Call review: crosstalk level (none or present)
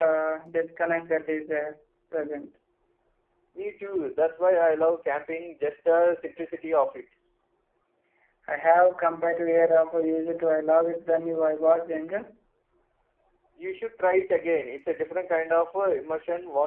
none